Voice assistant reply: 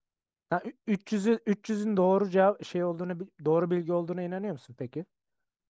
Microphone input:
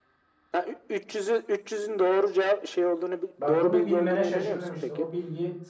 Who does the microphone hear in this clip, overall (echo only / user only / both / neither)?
both